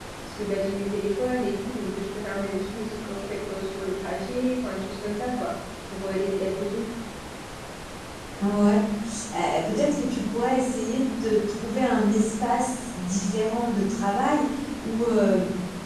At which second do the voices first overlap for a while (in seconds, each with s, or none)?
none